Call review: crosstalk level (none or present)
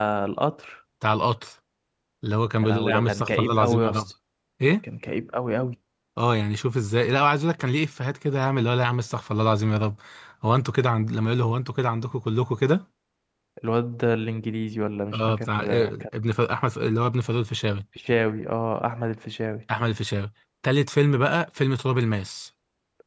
present